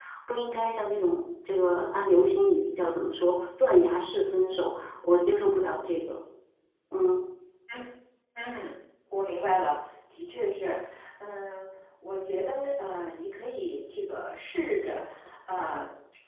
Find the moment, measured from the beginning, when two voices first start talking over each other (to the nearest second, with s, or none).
none